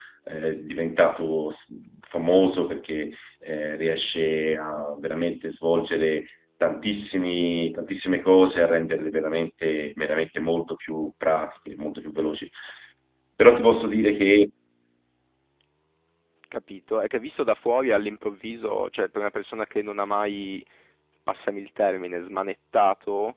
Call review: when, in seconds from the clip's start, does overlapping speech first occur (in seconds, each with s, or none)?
none